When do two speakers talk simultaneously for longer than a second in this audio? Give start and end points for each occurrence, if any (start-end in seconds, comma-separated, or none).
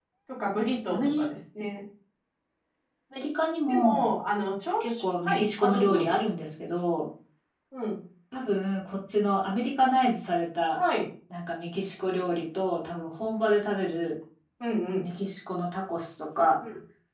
4.8-6.2